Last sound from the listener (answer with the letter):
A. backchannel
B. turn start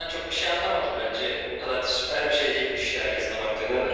B